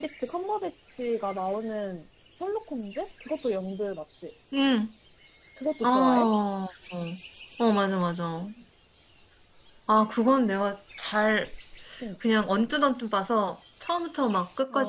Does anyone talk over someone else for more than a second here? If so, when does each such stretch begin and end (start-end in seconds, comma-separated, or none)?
none